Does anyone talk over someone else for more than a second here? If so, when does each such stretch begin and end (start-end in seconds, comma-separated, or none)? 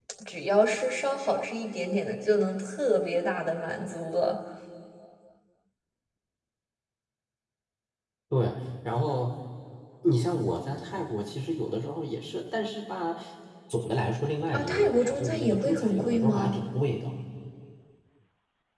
14.5-16.6